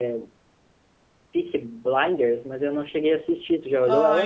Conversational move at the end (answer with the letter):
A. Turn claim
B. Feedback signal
A